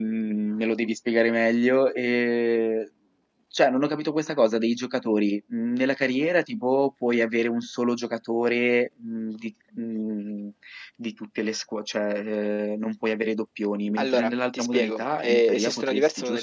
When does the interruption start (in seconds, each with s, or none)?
14.0 s